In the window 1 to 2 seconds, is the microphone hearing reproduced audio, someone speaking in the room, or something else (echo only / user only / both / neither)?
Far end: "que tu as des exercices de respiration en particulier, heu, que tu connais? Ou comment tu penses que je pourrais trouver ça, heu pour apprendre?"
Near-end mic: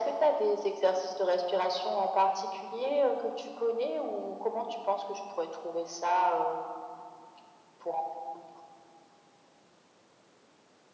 echo only